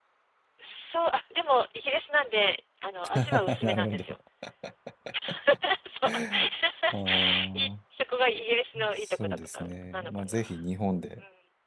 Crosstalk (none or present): present